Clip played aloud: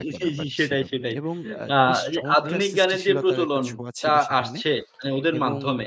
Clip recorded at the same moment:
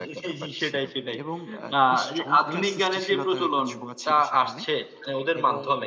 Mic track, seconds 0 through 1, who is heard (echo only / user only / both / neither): echo only